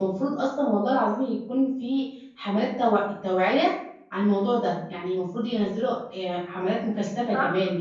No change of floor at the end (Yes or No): No